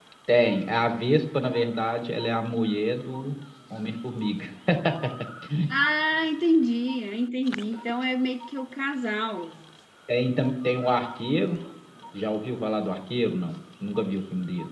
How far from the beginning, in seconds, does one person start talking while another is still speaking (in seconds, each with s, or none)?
none